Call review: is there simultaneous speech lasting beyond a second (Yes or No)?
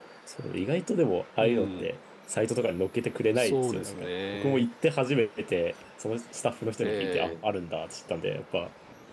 Yes